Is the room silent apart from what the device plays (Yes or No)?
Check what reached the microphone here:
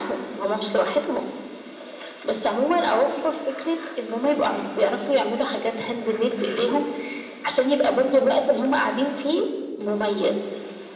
Yes